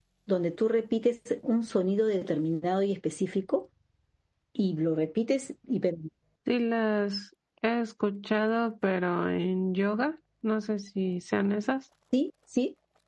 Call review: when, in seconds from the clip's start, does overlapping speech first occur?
none

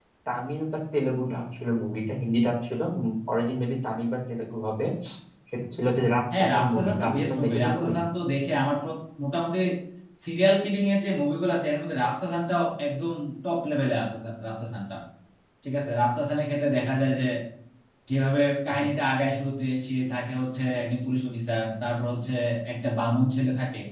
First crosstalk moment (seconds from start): 6.4 s

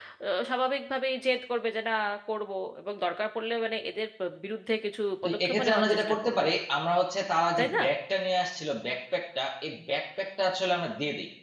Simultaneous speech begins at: 5.2 s

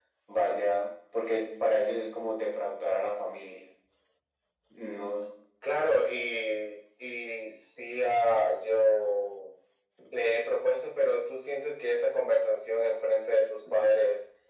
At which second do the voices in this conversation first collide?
none

